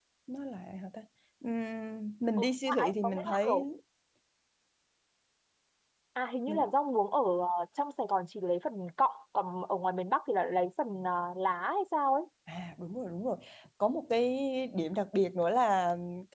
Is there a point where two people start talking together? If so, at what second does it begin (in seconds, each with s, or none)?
2.4 s